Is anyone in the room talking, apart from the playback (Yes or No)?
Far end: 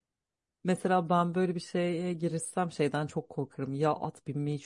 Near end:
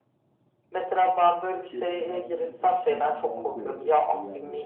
Yes